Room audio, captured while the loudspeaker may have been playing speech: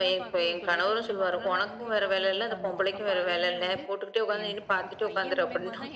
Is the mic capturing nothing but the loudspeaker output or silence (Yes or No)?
No